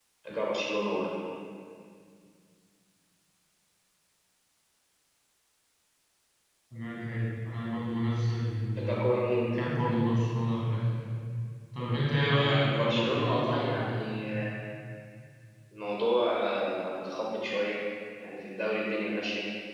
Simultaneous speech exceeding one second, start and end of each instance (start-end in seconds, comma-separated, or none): 12.3-13.9